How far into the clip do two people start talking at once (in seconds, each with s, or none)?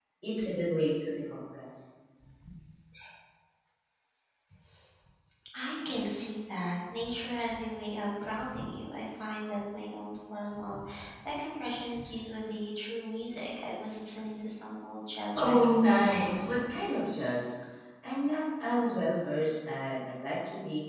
15.3 s